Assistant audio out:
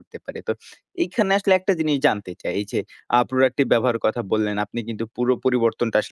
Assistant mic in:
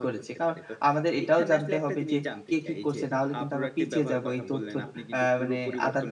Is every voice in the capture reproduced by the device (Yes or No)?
No